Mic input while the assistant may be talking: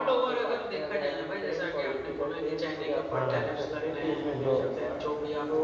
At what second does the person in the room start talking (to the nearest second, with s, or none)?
3 s